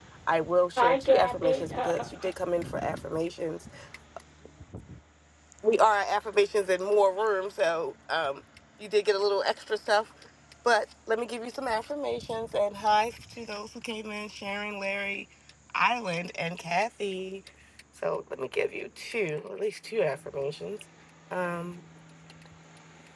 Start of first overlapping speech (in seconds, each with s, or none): 0.8 s